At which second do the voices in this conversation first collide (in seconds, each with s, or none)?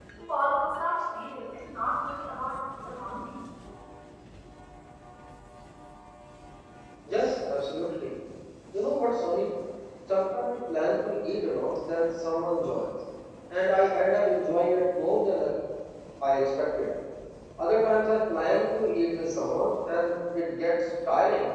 none